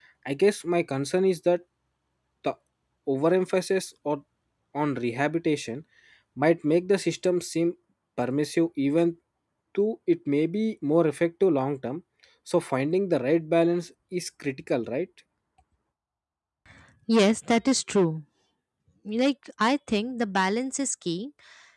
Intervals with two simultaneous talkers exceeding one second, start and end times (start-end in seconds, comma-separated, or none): none